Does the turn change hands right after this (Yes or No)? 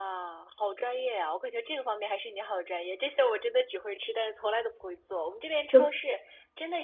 No